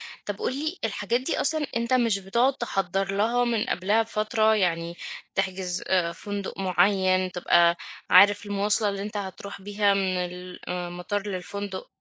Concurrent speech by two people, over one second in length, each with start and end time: none

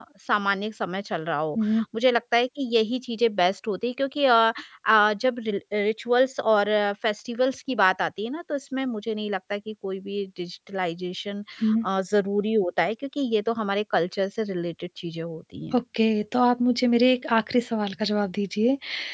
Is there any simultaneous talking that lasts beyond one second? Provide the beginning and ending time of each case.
none

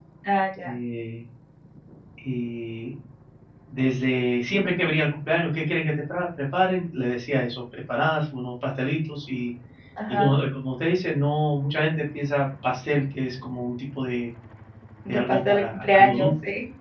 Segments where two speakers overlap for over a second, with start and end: 15.1-16.3

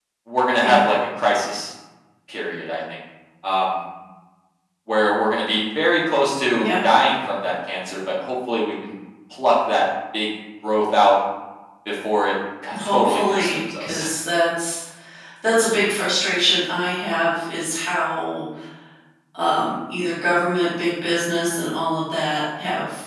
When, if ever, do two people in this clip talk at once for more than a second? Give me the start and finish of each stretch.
12.8-14.1

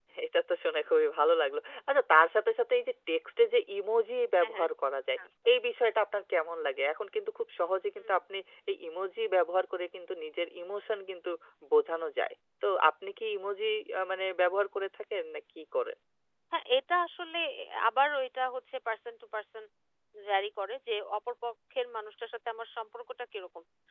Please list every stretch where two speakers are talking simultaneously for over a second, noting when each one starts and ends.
none

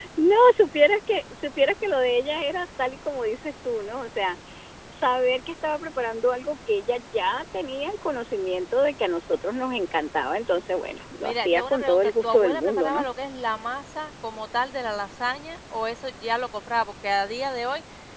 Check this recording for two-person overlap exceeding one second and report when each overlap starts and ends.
11.2-13.0

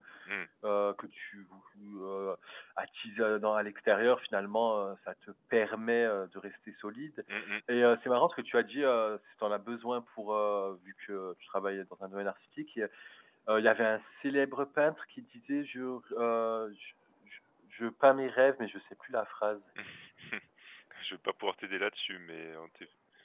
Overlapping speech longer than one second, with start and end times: none

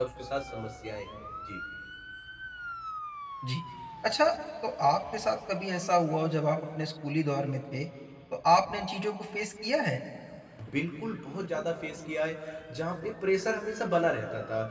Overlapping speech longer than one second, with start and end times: none

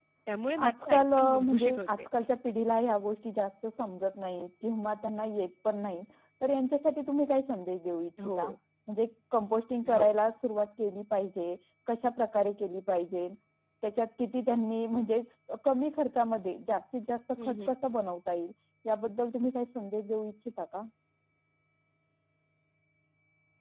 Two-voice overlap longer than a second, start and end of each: 0.6-1.9

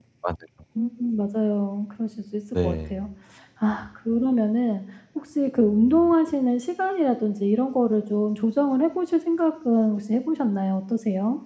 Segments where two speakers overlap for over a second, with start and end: none

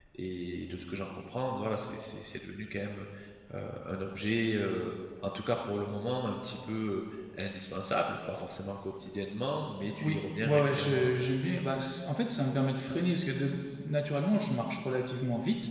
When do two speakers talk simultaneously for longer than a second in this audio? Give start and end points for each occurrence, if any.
10.0-11.3

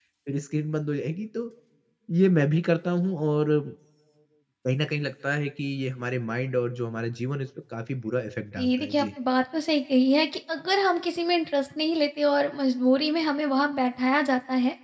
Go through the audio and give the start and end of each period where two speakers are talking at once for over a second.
none

